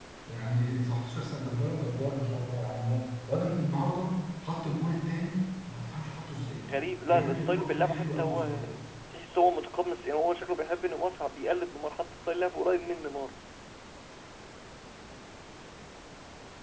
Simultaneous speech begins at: 7.1 s

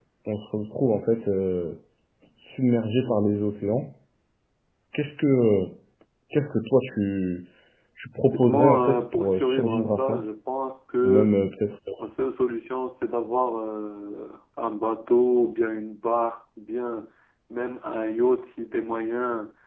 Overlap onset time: 8.2 s

